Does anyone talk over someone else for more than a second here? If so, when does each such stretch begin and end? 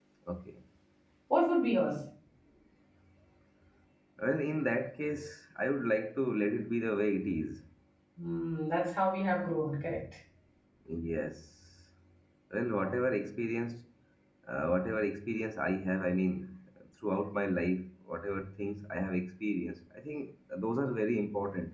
none

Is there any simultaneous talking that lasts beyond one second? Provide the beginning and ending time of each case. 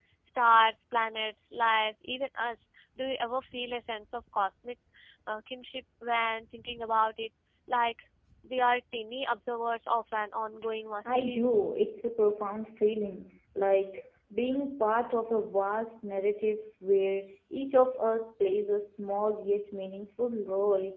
none

